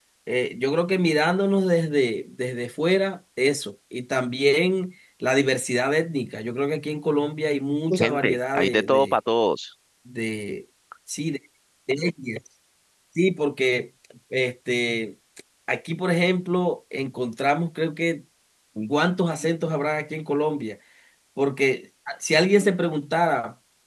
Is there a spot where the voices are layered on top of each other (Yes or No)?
Yes